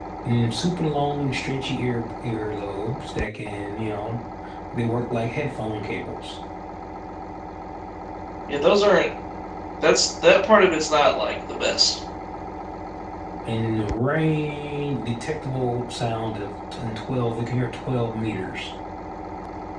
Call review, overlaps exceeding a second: none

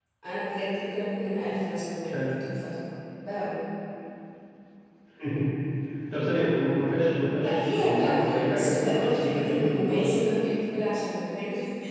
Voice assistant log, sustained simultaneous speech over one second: present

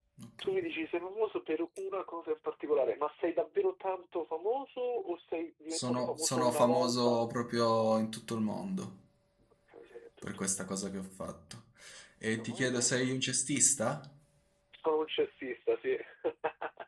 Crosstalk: present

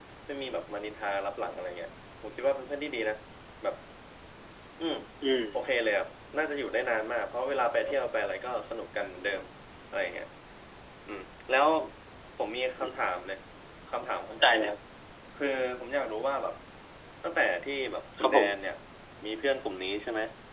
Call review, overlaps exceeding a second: none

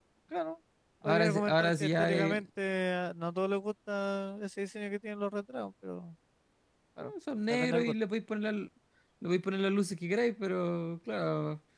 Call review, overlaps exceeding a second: present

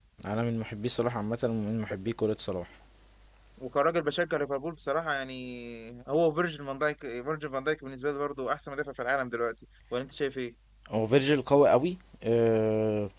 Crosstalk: none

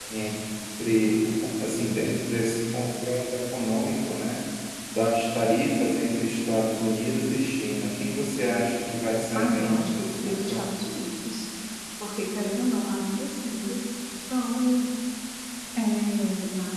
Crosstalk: present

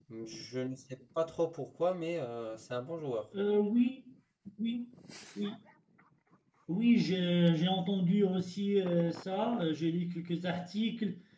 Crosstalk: none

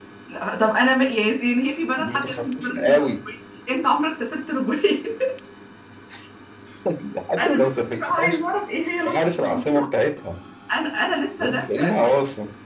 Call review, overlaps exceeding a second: present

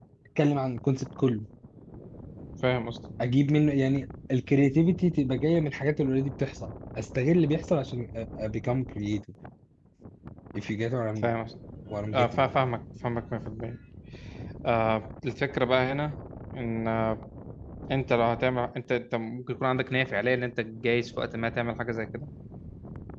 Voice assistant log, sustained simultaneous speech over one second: none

